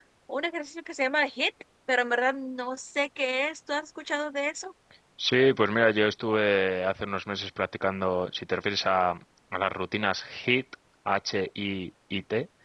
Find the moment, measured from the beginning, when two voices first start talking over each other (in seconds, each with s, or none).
none